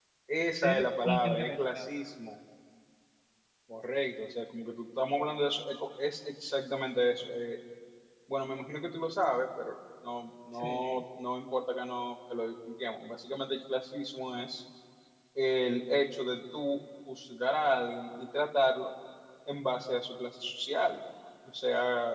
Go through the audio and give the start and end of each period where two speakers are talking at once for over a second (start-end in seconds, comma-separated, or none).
0.6-1.9